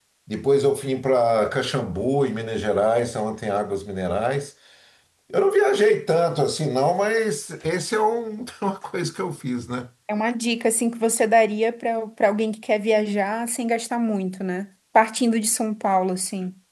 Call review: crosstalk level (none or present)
none